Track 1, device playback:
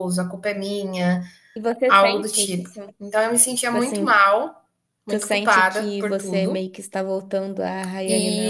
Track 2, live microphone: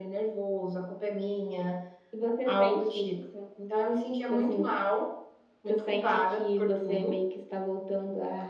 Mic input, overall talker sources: echo only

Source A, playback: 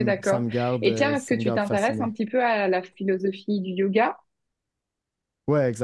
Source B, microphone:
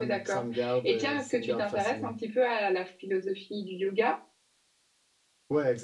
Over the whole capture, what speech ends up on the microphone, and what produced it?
echo only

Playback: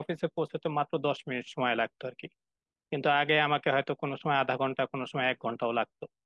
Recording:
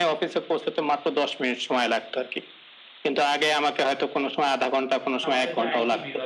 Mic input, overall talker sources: both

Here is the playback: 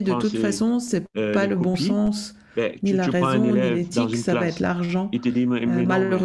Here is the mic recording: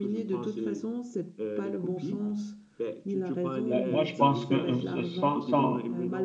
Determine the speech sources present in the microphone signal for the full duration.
both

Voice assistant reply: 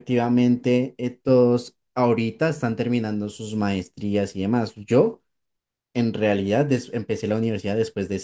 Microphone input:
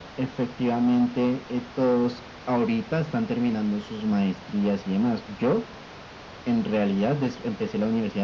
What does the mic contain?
echo only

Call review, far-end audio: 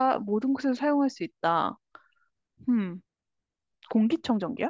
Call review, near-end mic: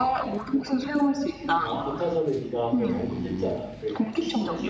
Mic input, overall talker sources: both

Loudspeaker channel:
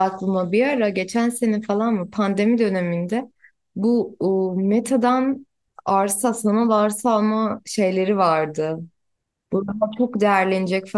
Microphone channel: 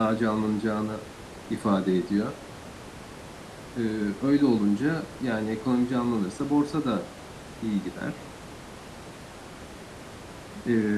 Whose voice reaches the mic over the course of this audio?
user only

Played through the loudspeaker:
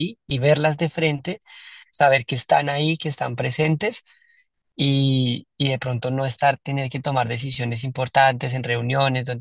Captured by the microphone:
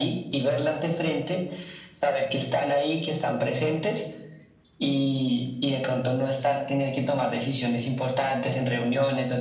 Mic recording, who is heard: echo only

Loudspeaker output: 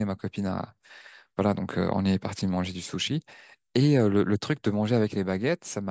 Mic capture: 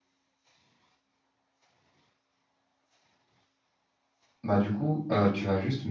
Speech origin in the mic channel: user only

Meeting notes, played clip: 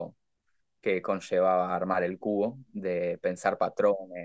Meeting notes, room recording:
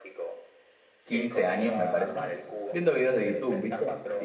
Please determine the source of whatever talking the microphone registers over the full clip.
both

